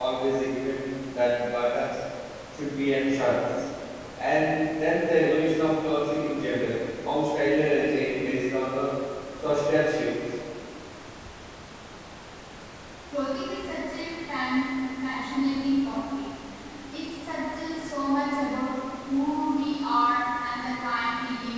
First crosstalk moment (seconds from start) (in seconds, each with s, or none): none